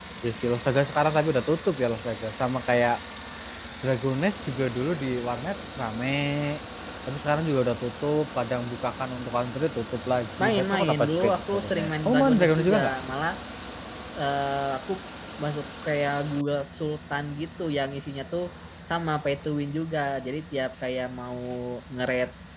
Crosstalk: present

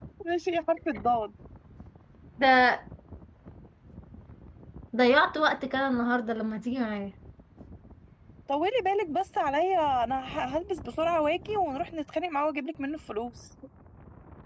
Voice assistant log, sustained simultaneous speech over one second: none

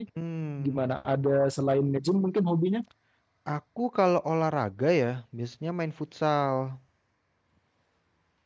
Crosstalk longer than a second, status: none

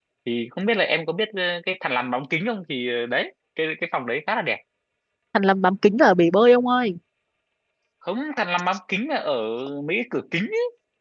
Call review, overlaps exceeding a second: none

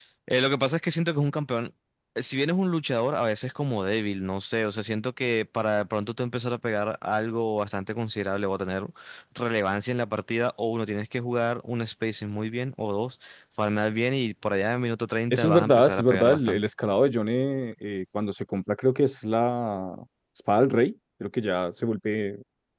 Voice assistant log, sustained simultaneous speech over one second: present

